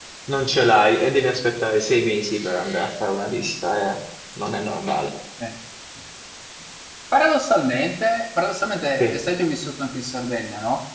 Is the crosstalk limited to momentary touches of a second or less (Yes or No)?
Yes